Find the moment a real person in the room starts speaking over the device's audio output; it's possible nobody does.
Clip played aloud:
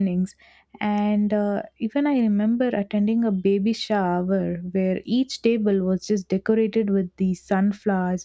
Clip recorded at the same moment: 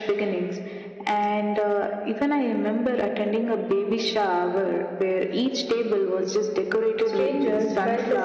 7.1 s

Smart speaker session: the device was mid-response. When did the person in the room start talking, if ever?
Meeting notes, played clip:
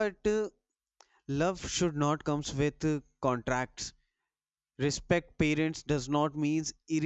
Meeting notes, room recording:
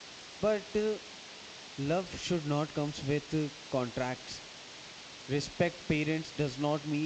none

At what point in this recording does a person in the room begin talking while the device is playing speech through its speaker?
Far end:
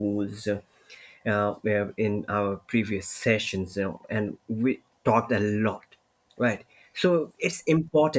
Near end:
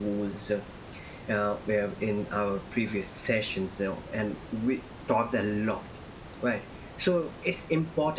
none

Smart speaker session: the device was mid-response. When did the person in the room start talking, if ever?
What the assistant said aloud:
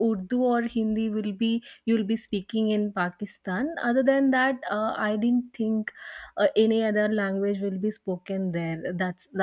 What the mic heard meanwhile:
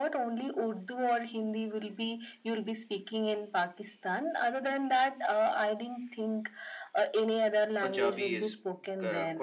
7.8 s

